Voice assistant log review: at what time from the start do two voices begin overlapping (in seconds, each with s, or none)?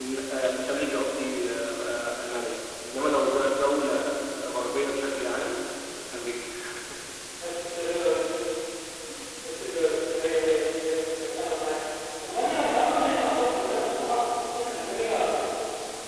none